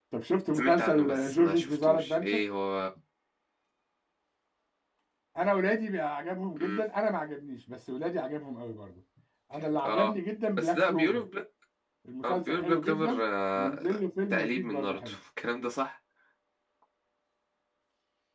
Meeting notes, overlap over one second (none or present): present